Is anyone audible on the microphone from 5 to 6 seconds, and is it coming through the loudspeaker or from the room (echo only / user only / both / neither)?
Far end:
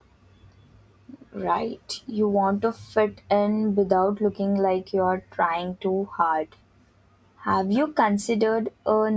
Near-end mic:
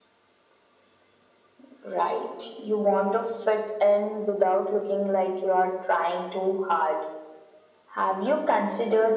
echo only